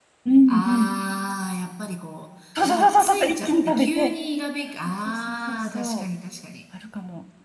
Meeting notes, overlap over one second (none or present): present